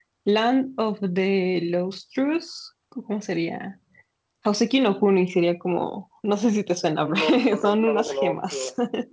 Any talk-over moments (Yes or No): Yes